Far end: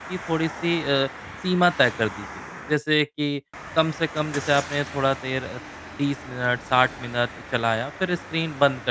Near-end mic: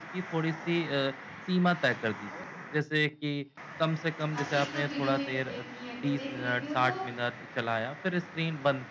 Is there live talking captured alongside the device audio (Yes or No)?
Yes